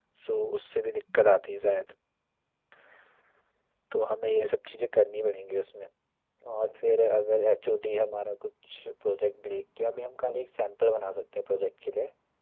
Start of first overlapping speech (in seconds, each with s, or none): none